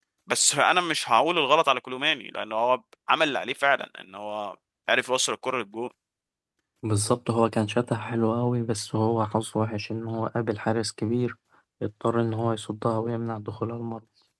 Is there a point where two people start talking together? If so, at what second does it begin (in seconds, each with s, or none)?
none